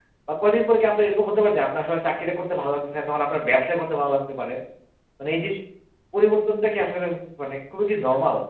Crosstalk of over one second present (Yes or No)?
No